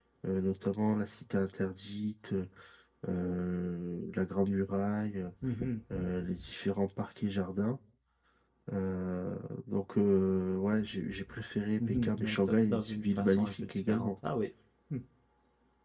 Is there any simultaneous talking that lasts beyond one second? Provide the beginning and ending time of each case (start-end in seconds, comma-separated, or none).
11.8-14.1